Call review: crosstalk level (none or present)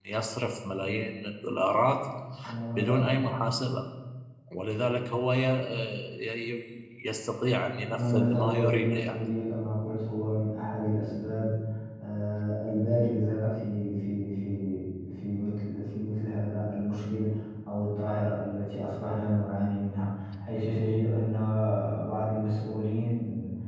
present